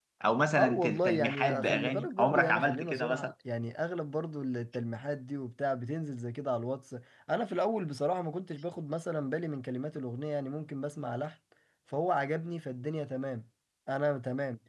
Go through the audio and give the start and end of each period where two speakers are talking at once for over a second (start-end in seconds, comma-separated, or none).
0.6-3.3